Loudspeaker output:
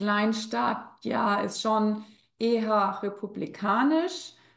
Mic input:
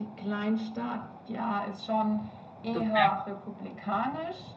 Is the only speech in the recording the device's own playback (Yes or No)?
No